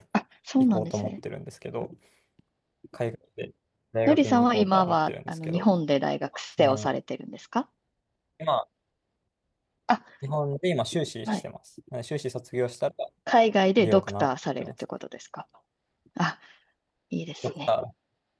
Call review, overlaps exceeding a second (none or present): present